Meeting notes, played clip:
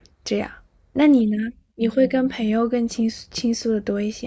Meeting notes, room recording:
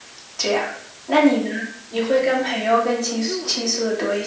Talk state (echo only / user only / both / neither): both